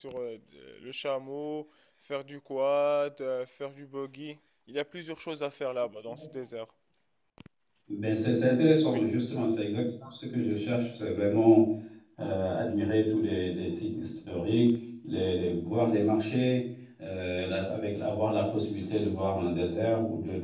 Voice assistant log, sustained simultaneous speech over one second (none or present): none